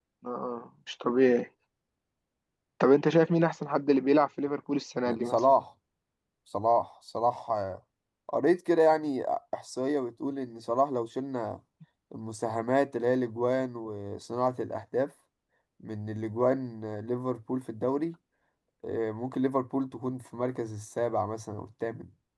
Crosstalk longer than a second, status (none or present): none